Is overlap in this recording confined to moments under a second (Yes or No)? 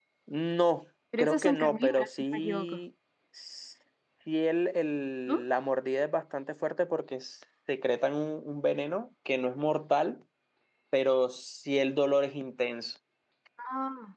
No